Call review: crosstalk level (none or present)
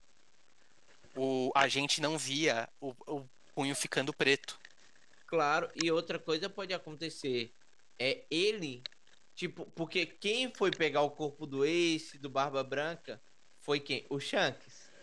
none